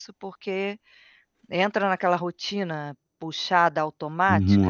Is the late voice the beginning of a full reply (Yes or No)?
Yes